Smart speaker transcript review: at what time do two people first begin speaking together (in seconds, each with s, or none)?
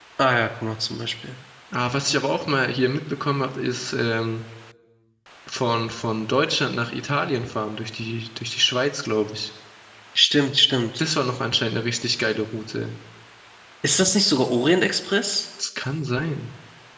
none